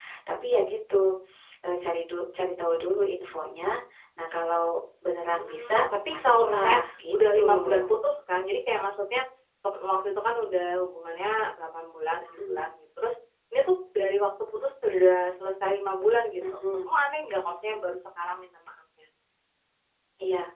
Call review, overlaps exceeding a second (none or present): present